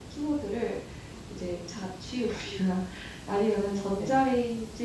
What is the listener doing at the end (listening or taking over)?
listening